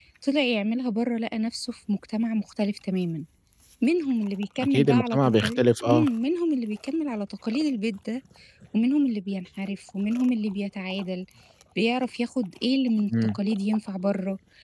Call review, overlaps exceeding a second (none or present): present